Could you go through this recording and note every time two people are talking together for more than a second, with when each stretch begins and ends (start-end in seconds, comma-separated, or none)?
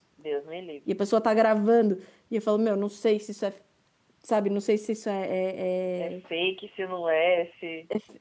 none